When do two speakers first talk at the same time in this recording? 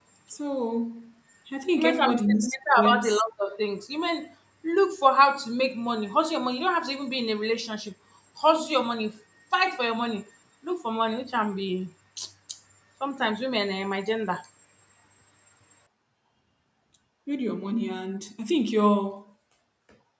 1.8 s

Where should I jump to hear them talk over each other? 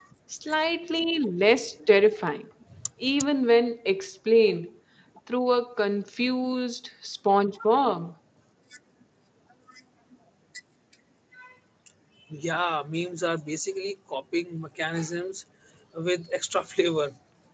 none

